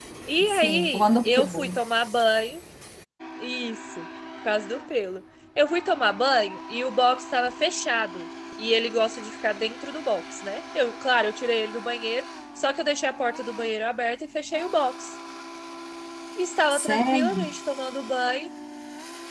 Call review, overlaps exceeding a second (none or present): present